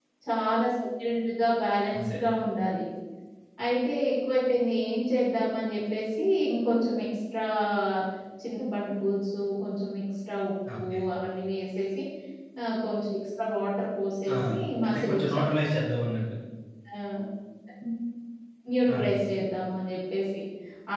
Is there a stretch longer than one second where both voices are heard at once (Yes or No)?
No